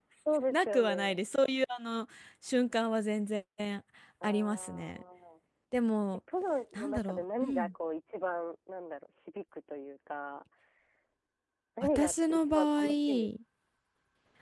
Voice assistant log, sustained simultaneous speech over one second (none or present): present